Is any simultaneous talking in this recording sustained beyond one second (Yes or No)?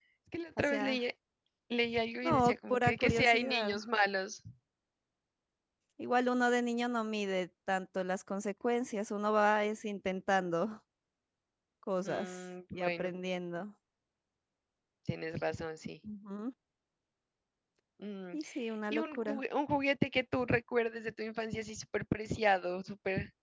Yes